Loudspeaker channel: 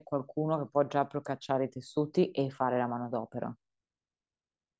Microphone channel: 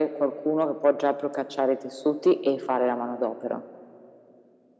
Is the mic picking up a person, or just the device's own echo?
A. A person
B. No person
B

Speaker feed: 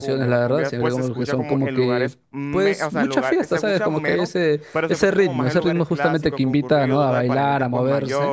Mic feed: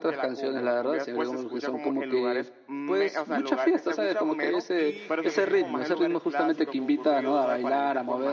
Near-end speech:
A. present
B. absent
A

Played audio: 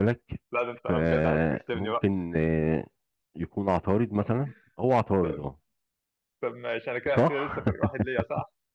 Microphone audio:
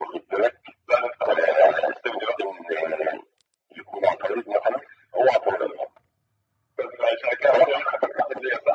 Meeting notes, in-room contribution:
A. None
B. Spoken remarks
A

